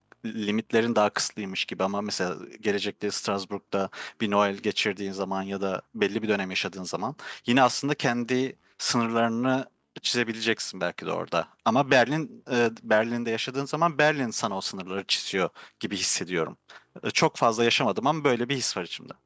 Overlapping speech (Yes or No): No